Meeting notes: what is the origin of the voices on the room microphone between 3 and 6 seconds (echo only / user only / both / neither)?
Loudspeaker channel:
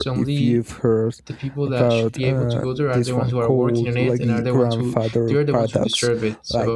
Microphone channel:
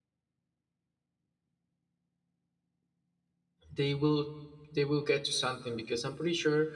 user only